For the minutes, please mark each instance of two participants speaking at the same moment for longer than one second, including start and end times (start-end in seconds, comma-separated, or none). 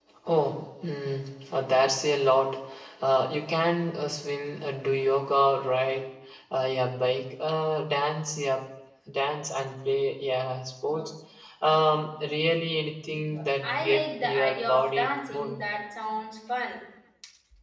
13.6-15.6